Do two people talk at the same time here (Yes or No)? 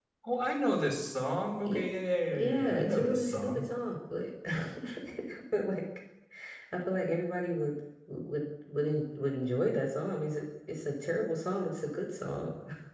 Yes